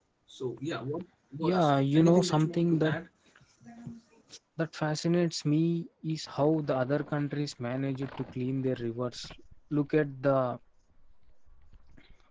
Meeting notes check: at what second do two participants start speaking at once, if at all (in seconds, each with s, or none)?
1.4 s